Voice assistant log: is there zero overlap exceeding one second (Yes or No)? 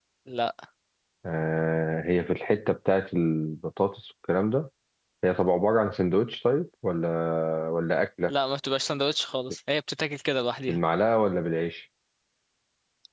Yes